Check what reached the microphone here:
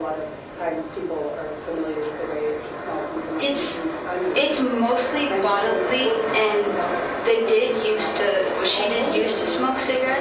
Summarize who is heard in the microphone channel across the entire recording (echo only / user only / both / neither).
echo only